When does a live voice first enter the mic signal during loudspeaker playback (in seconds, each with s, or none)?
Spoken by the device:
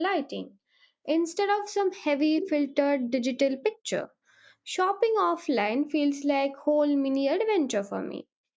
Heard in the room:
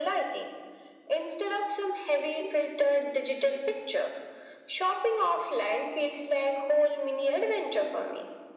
none